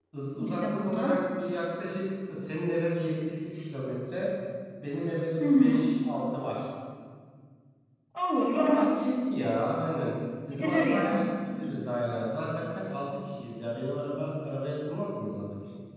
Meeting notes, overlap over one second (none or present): present